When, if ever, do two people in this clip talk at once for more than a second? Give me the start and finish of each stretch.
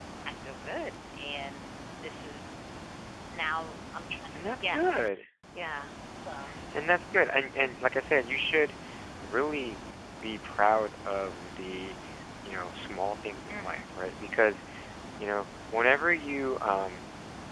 none

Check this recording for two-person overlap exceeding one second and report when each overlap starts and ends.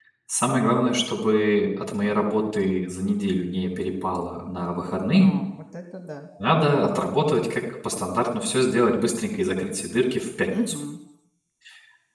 none

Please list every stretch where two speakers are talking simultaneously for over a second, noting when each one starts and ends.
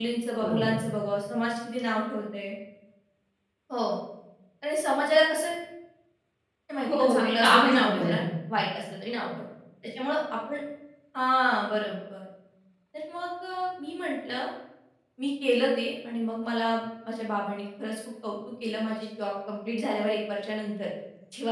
6.9-8.2

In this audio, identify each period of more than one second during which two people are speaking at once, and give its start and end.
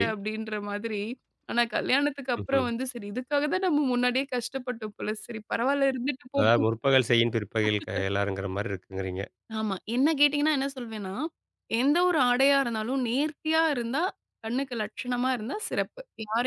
none

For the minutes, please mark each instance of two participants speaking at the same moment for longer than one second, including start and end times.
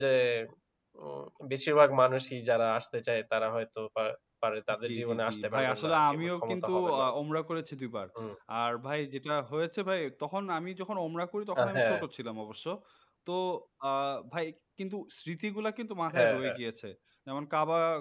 4.9-7.0

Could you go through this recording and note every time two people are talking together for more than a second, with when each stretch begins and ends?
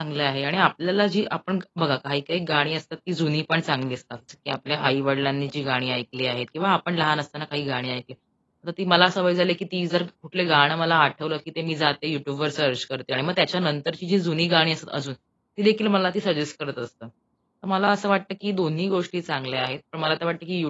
none

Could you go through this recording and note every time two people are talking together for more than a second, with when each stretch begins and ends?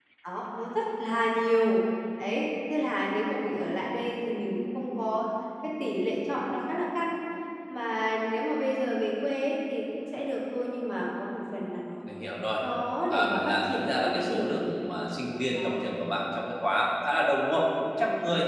13.1-14.8

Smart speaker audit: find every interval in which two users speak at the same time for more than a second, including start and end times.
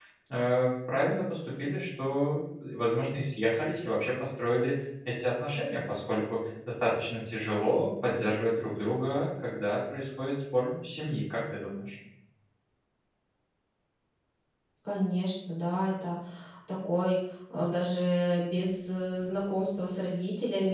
none

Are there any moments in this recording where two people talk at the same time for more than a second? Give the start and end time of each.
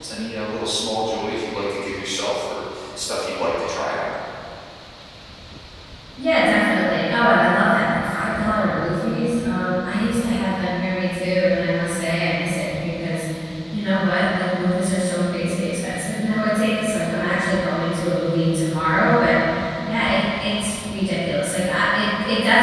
none

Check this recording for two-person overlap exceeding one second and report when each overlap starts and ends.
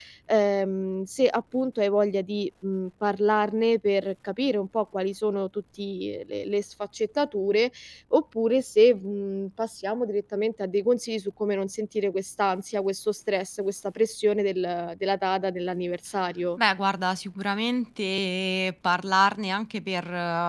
none

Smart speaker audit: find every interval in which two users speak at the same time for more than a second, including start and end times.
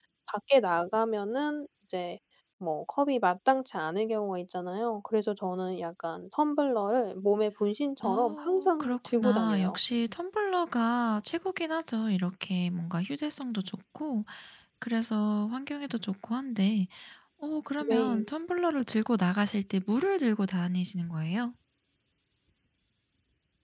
8.0-9.8

